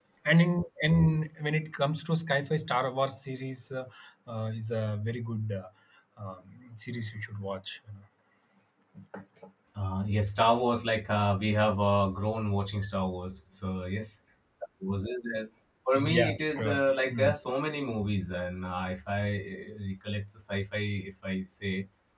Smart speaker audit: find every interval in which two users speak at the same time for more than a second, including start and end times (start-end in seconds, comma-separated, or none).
15.9-17.3